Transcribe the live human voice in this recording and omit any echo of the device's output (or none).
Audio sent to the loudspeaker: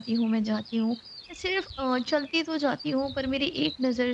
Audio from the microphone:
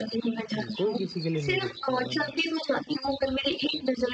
जी, कोई किसी के लिए नहीं रुकता है वाला।